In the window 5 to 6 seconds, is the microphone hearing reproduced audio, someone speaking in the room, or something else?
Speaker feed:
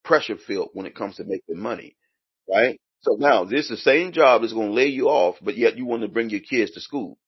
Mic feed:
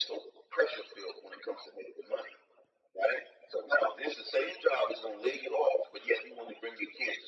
echo only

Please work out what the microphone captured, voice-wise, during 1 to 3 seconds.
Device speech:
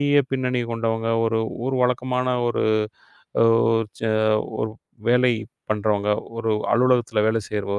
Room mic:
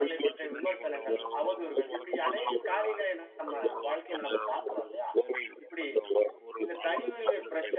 both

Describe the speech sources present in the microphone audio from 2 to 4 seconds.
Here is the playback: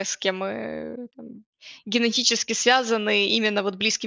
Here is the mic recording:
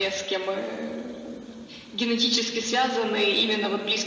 echo only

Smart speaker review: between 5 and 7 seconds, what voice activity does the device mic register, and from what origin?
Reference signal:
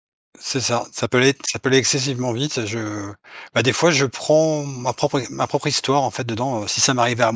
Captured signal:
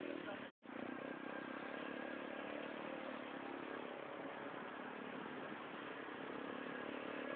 neither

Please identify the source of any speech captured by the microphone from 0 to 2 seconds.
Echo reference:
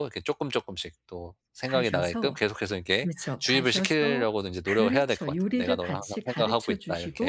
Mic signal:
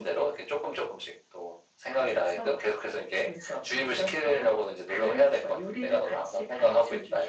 echo only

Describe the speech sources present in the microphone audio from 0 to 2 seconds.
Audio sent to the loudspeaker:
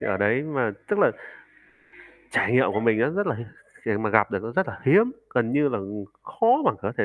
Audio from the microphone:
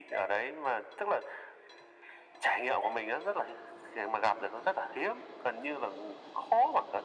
echo only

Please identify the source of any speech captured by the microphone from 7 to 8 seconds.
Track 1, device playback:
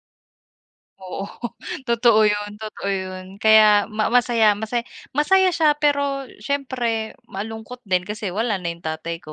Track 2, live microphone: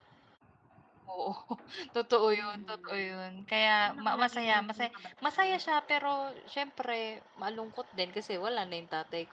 echo only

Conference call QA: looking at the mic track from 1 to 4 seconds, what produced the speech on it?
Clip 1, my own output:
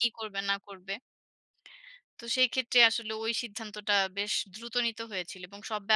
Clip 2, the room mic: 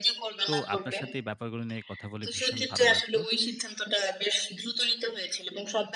both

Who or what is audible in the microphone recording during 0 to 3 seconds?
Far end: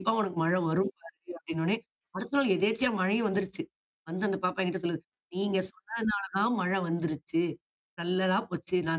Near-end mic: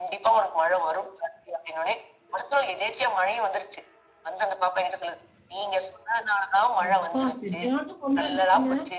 echo only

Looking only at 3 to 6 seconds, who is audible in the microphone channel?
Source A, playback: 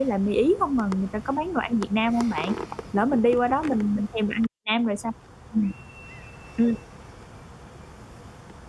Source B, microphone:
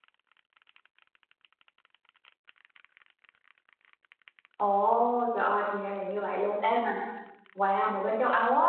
user only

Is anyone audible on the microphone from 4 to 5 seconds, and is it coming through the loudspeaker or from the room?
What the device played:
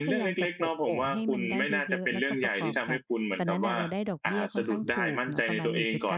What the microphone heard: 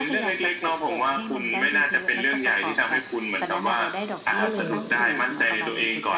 both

